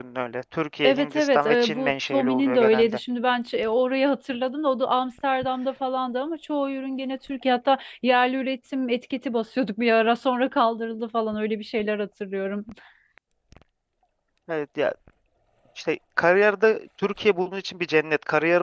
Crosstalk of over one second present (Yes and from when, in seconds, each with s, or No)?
Yes, from 0.8 s